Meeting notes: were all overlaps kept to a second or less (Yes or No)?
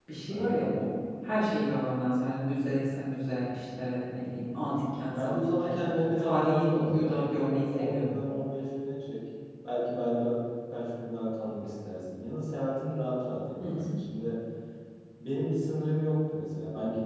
No